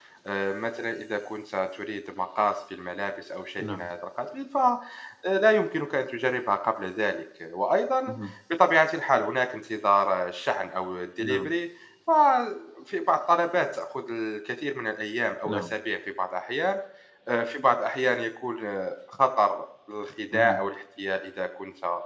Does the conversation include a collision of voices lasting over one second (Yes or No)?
No